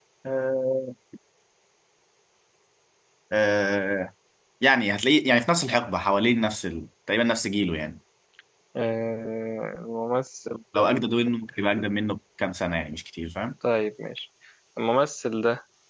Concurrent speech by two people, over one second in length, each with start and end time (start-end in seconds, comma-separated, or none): none